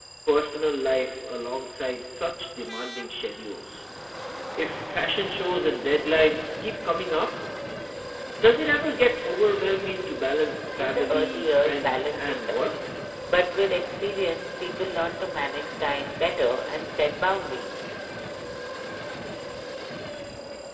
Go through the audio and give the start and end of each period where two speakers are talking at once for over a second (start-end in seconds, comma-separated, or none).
10.8-12.6